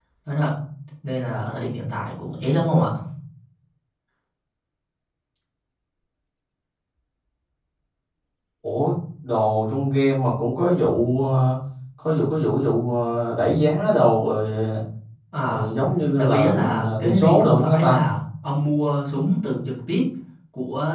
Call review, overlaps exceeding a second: present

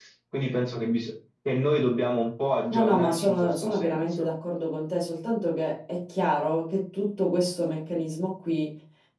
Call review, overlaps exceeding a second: present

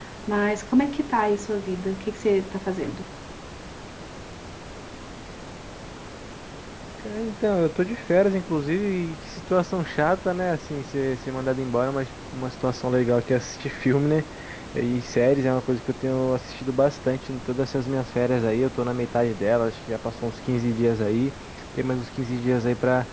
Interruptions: none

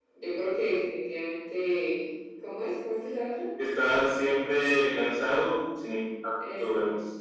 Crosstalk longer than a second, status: none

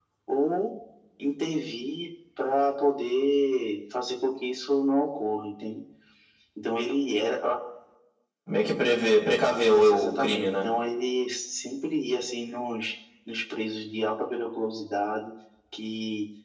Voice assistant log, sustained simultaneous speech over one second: present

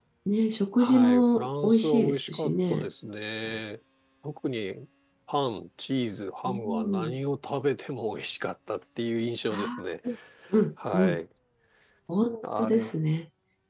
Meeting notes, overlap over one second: present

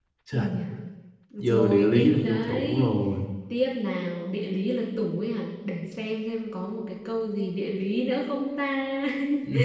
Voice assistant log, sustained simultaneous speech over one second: present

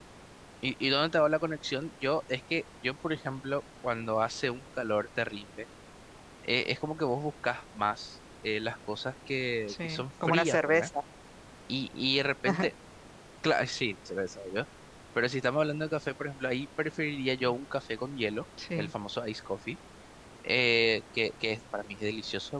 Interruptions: present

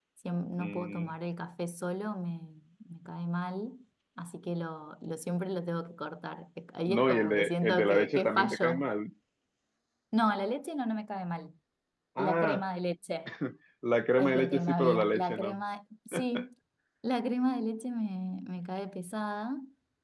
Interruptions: present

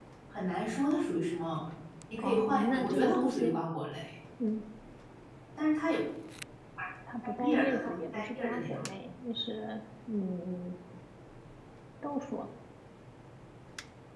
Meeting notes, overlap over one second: present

